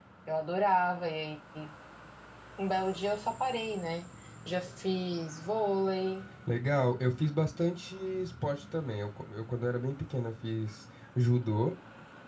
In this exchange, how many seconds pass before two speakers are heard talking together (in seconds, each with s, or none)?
none